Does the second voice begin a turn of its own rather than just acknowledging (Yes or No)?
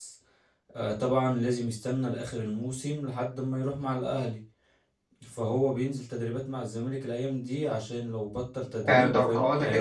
Yes